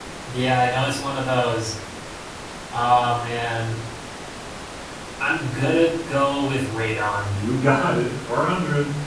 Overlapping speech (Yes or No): No